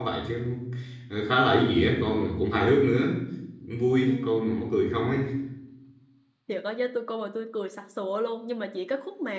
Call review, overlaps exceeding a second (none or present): none